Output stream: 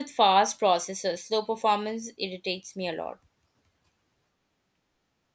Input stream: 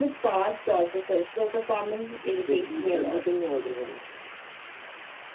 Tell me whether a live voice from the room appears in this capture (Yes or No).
Yes